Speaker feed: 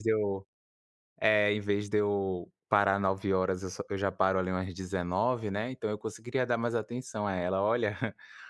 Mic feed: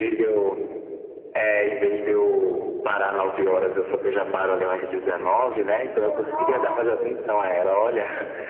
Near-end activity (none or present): present